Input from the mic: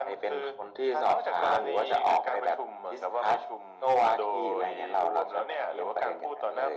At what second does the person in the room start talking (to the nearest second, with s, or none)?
none